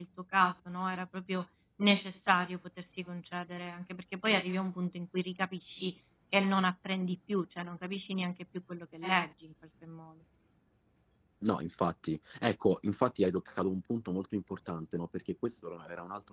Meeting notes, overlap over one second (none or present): none